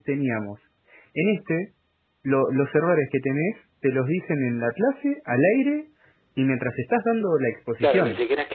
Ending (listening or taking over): taking over